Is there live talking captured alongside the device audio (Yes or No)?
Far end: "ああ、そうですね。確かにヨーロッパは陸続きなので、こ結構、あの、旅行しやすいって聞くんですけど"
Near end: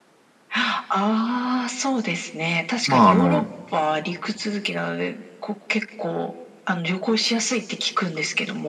Yes